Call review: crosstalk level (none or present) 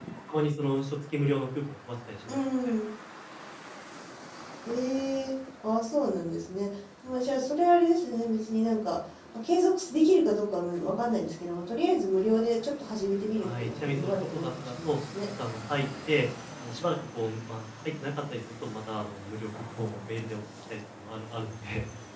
present